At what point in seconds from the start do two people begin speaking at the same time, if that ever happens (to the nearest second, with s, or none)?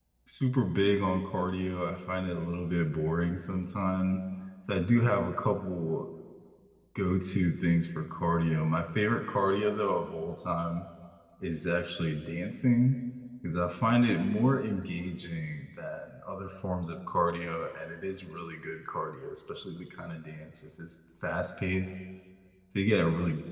none